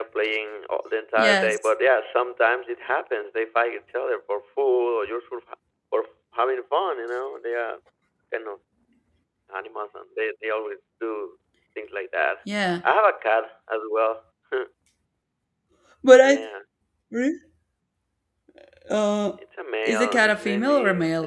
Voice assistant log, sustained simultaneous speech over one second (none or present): present